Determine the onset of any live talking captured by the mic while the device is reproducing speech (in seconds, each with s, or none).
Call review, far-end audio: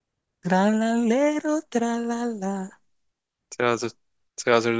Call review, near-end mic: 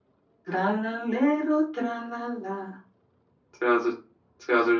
none